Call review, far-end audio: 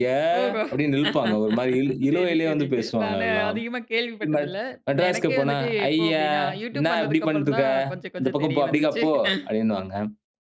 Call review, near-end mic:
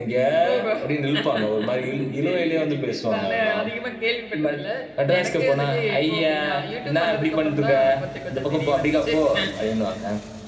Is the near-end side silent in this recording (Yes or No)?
Yes